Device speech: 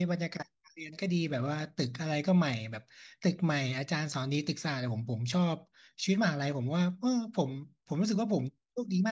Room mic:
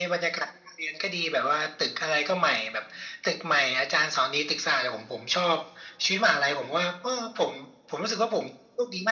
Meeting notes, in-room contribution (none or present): none